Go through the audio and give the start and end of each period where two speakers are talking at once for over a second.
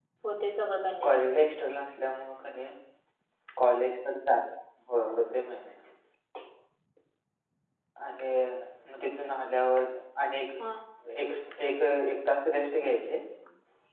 none

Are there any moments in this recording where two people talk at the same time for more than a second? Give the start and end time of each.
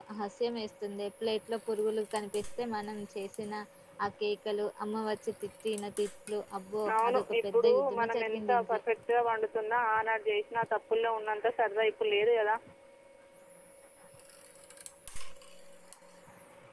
6.9-8.8

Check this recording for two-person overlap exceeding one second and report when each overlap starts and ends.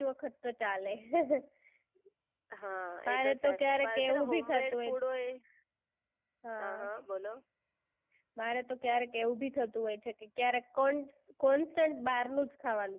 3.1-4.8

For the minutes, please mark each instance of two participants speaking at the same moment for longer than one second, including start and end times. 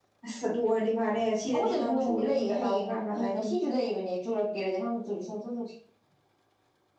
1.5-3.6

